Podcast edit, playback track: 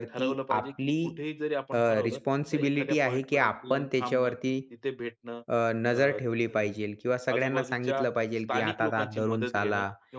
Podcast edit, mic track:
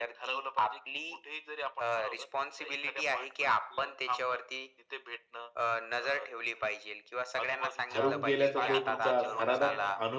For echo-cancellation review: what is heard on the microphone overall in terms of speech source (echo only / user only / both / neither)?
both